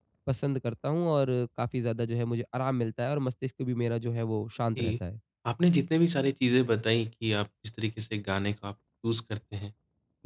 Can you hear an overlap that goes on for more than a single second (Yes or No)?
No